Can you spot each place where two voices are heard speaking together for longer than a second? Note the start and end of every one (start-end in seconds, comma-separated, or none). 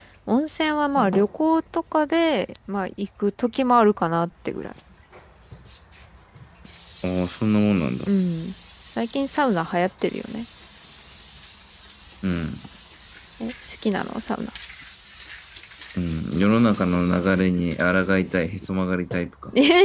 none